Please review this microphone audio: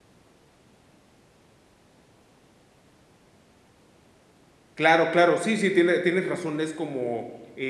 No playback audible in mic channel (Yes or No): Yes